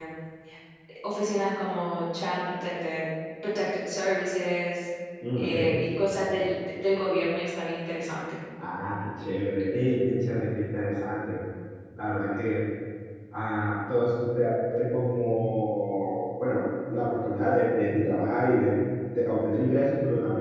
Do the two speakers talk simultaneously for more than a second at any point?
No

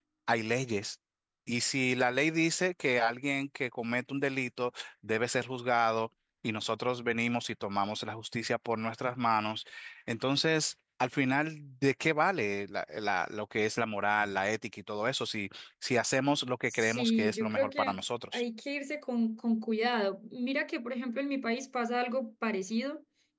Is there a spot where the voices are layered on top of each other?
Yes, from 16.7 s

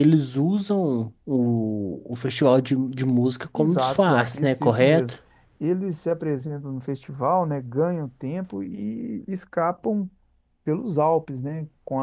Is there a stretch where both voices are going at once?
Yes, from 3.6 s

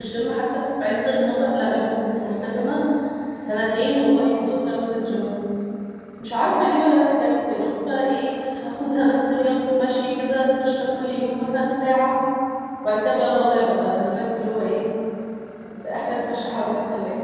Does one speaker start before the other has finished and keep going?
No

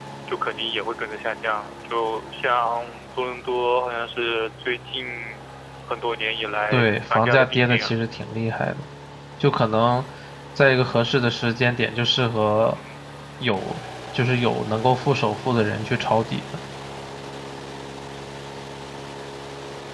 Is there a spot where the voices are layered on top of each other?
Yes, from 6.7 s

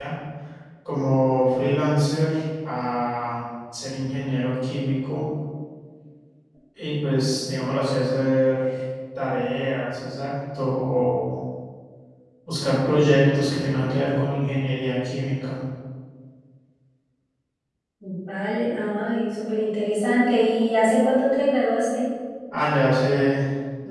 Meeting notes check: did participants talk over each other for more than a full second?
No

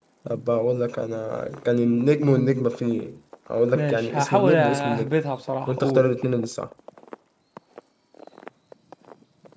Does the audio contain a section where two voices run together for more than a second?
Yes, from 3.8 s

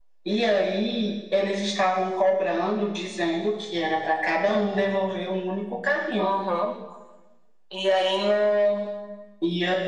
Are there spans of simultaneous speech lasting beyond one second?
No

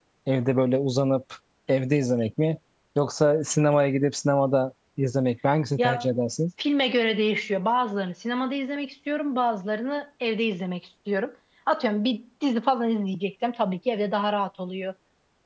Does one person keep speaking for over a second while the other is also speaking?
No

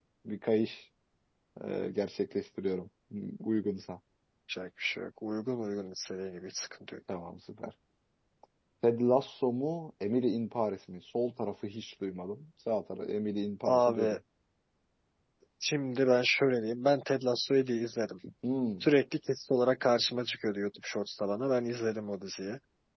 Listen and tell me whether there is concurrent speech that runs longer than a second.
No

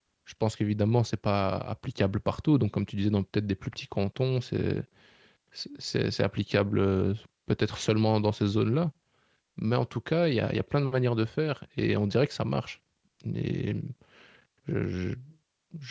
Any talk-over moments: No

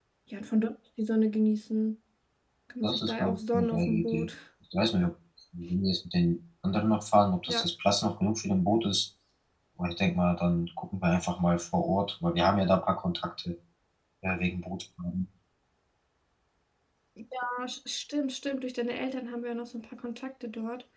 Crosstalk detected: Yes, from 2.8 s

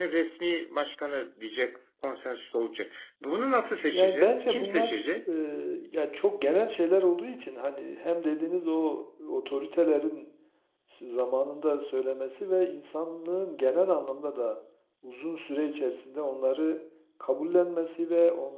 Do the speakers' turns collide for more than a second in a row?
Yes, from 3.9 s

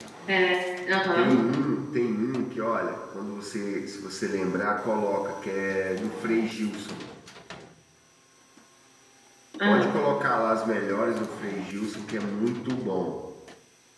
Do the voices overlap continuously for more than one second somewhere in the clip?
No

